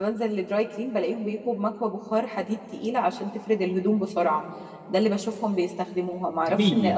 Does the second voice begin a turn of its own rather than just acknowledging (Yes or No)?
No